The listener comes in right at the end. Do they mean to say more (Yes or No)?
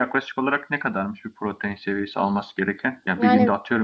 No